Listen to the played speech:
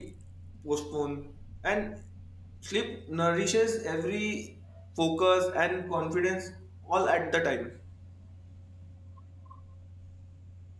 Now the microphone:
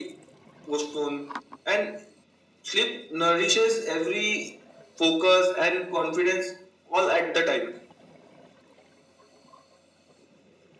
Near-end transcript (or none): none